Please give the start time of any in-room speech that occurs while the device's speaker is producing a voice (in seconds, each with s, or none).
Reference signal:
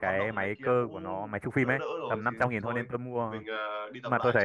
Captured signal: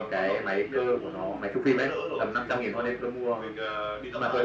none